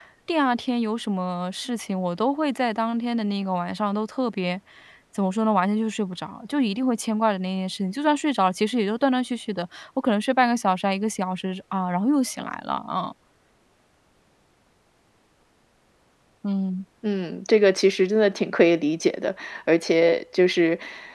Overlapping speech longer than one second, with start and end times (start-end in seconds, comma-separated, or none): none